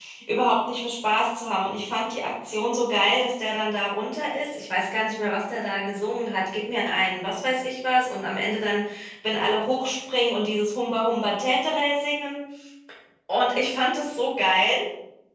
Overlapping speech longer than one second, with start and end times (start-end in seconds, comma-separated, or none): none